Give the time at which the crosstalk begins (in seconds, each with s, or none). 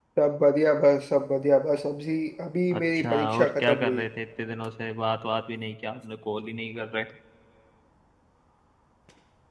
2.7 s